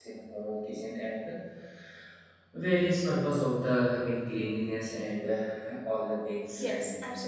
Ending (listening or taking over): taking over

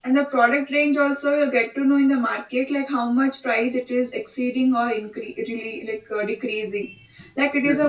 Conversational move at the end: listening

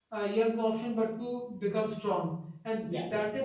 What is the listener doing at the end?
listening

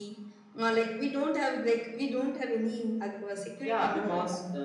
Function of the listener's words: taking over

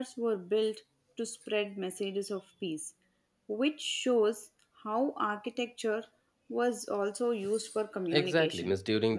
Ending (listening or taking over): taking over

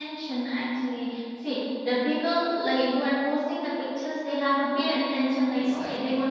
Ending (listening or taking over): listening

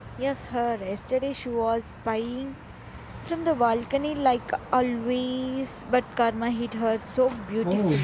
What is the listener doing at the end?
taking over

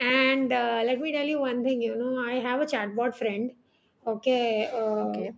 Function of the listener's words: listening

